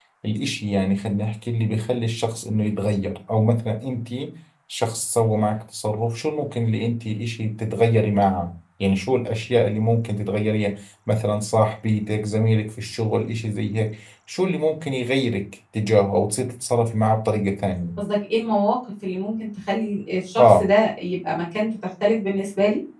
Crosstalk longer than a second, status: none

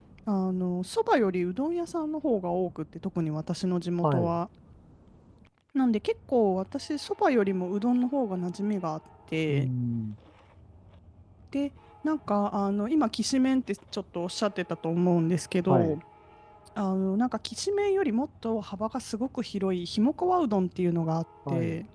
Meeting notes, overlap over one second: none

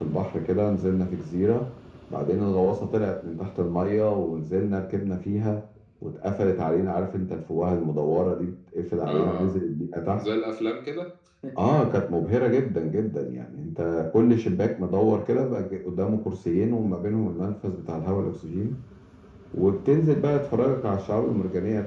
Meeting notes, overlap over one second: none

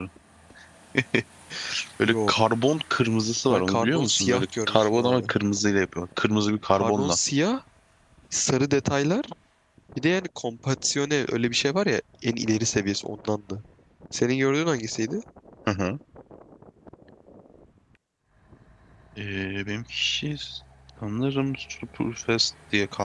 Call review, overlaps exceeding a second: present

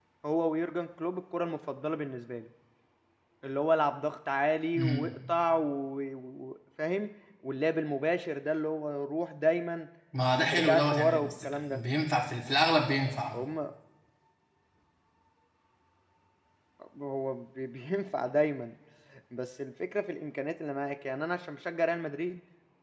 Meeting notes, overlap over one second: present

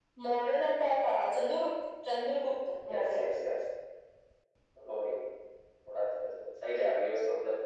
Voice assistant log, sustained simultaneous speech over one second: none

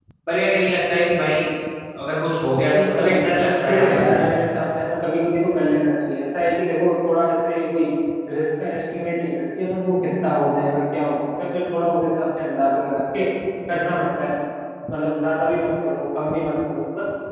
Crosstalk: present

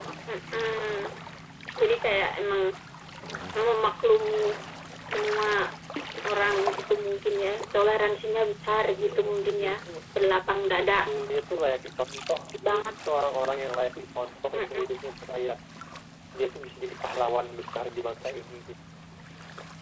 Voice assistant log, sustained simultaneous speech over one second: none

